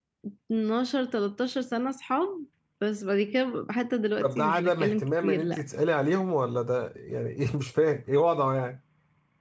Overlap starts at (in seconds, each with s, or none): 4.2 s